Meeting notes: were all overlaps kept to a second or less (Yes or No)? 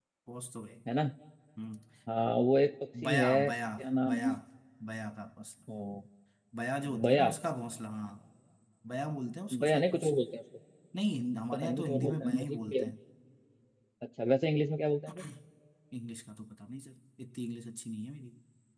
No